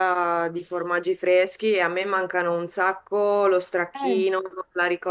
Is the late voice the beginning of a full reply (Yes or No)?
No